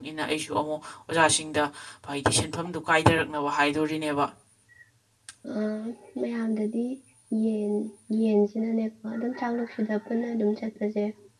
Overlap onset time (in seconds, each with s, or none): none